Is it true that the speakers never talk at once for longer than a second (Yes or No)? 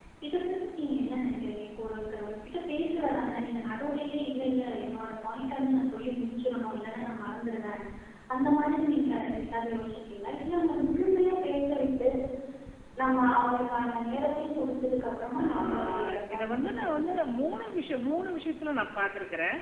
No